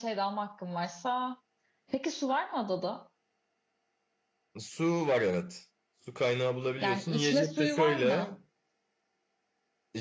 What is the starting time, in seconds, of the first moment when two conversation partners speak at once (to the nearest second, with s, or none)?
7 s